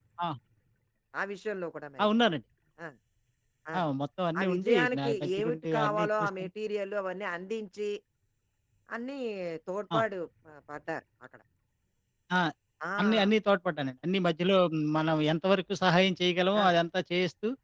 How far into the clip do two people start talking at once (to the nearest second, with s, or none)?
4 s